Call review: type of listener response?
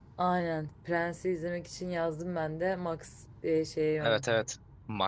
taking over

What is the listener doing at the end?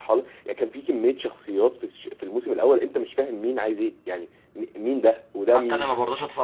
taking over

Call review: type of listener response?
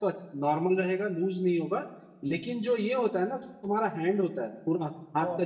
listening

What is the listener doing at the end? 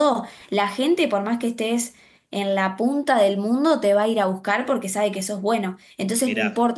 listening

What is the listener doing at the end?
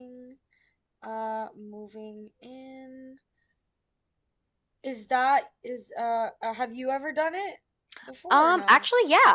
taking over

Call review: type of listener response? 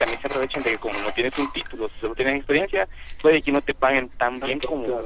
listening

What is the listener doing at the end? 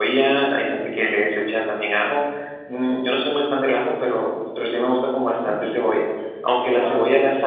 listening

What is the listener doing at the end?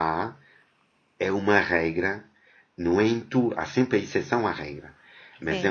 listening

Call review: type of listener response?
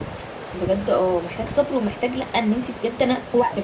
listening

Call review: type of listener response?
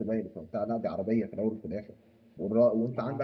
listening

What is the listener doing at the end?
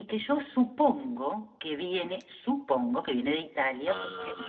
listening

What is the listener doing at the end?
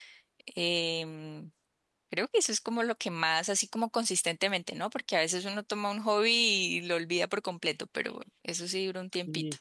taking over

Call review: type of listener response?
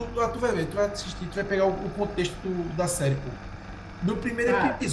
listening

